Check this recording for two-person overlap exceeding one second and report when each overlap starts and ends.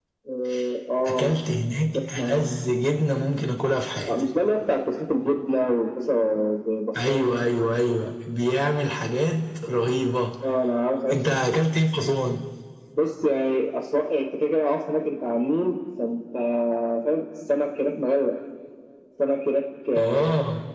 none

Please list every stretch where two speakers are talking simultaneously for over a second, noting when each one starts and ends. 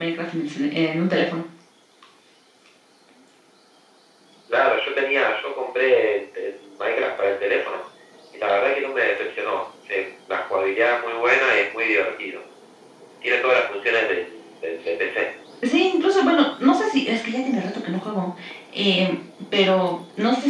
none

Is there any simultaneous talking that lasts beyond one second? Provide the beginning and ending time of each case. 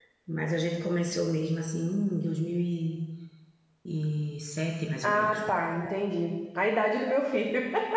none

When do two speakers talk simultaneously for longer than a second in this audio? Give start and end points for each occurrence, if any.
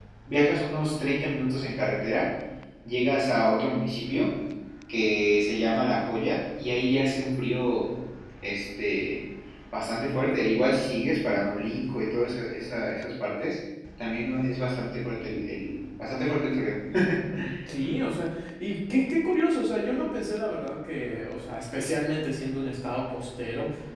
none

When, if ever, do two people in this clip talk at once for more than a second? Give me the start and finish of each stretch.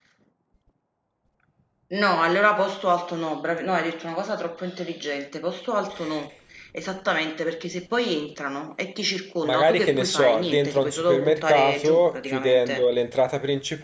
9.4-12.8

